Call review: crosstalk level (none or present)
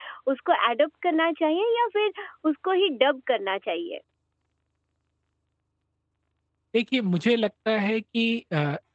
none